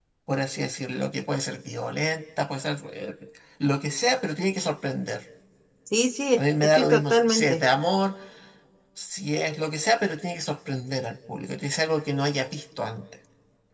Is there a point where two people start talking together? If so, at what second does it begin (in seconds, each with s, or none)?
6.4 s